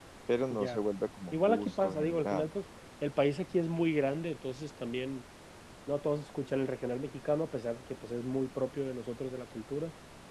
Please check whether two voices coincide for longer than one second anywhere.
Yes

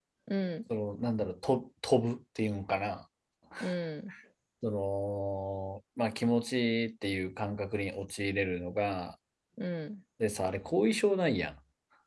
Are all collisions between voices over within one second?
Yes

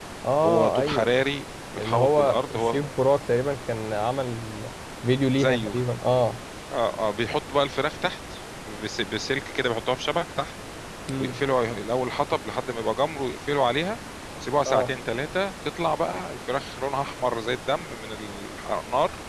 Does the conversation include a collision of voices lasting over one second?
Yes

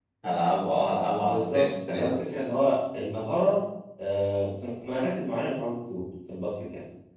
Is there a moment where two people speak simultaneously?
Yes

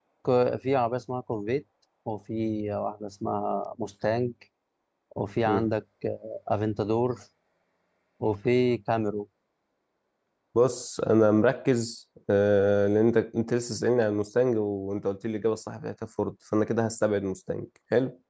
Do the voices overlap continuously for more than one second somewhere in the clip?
No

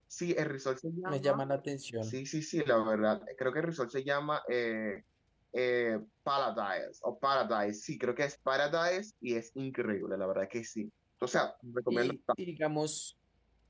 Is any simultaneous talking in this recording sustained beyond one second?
No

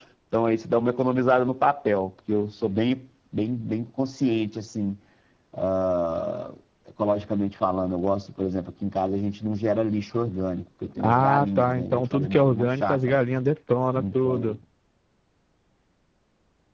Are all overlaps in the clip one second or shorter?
No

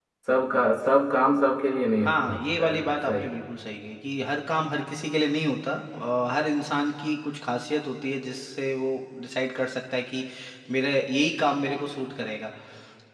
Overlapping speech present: Yes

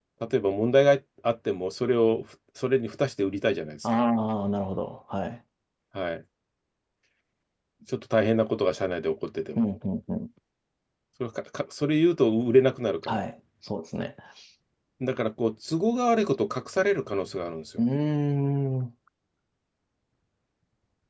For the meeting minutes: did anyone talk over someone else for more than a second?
No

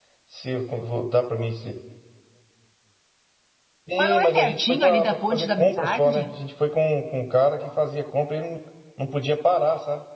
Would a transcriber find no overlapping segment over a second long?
No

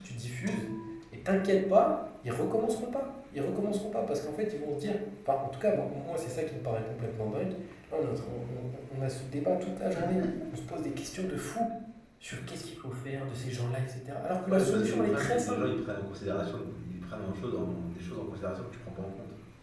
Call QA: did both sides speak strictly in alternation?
No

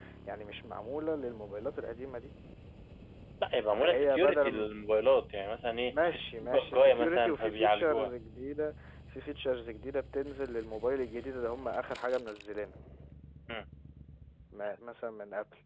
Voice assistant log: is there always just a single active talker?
No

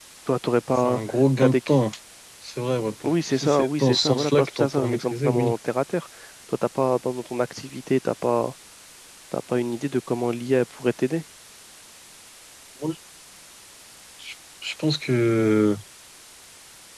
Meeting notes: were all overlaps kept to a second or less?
No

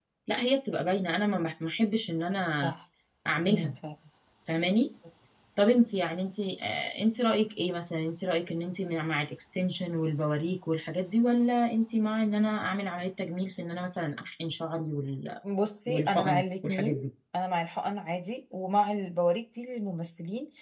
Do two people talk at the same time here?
Yes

